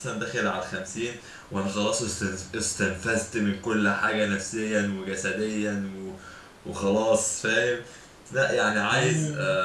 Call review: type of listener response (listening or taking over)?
listening